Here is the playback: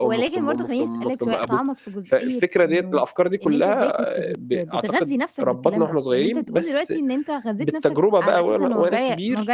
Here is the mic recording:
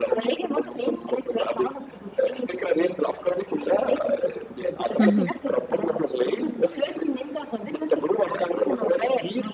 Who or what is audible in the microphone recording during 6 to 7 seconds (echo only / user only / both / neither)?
echo only